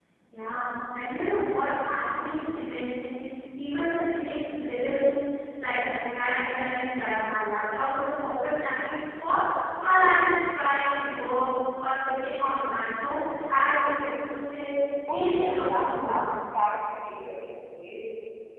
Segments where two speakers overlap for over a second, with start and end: 15.1-16.4

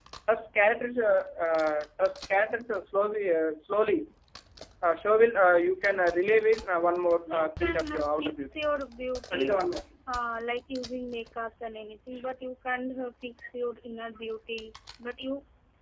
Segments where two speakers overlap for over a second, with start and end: 7.3-8.5

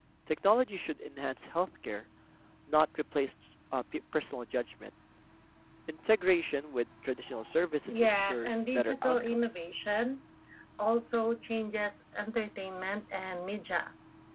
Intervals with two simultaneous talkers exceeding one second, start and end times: 7.9-9.4

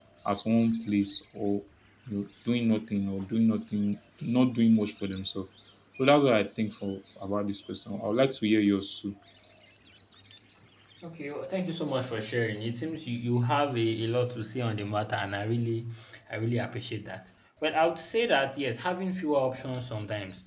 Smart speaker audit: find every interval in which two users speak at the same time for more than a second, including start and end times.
none

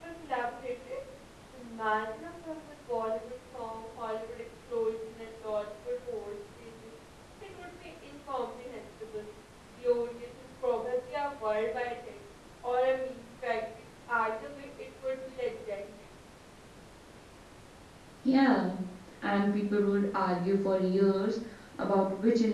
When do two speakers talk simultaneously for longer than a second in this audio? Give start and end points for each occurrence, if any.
none

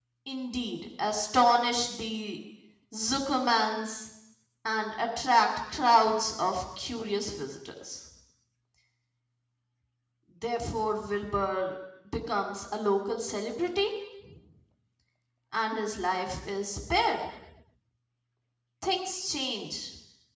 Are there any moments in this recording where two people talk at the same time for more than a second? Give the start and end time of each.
none

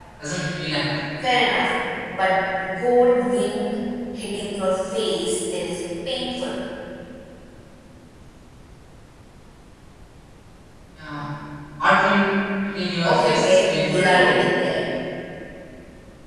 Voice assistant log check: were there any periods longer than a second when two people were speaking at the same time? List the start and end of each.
13.0-14.4

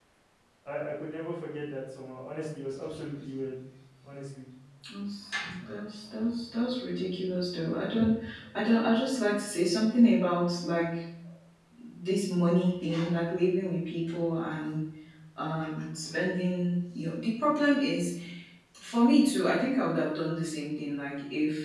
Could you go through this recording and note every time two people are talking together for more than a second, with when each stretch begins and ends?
none

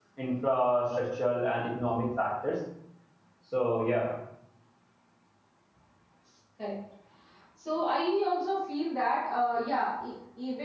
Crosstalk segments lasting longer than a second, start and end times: none

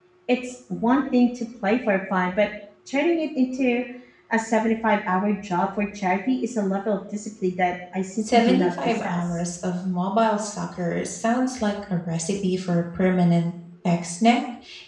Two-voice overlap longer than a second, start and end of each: 8.2-9.4

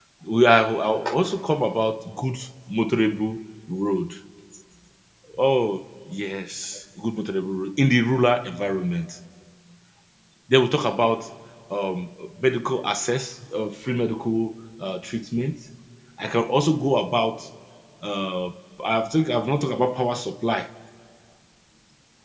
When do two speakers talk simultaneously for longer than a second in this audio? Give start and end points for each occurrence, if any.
none

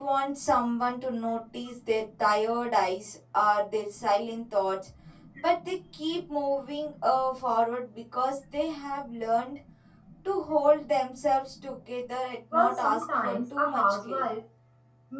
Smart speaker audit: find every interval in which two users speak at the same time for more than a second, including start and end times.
12.5-14.2

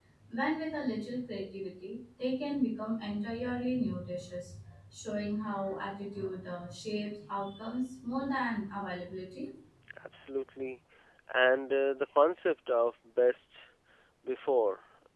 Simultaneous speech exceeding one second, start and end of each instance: none

